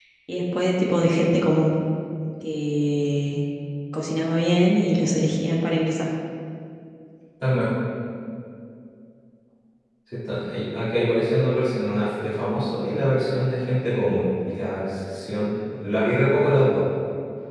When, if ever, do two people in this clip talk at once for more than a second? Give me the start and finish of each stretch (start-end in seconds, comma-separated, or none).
none